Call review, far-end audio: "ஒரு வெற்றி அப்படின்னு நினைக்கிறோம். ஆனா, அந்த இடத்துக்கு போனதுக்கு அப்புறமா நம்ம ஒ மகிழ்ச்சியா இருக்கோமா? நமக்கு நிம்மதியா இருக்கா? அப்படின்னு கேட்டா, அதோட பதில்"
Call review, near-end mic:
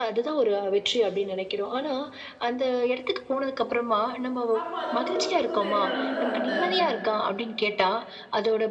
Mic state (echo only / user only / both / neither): both